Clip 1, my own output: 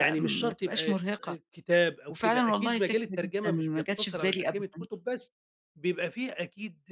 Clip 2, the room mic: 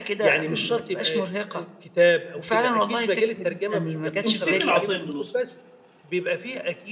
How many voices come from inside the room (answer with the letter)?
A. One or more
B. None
A